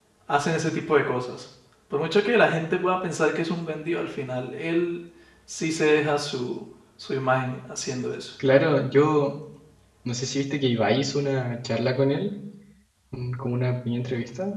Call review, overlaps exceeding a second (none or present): none